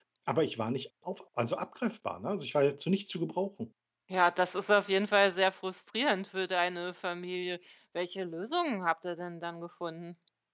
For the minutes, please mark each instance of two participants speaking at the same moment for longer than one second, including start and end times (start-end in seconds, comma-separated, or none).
none